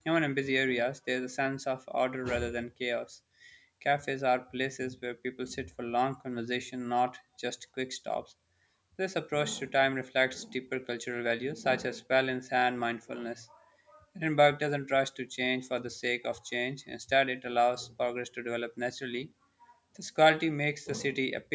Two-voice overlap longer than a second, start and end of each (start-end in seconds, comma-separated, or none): none